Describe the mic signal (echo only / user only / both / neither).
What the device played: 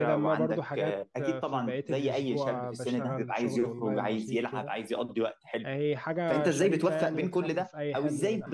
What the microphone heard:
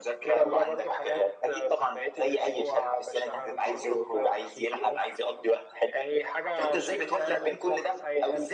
echo only